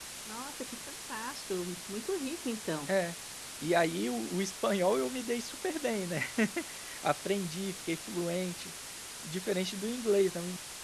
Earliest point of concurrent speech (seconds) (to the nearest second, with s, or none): none